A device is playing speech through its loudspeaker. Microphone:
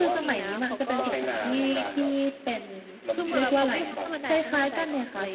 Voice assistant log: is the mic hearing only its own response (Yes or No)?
No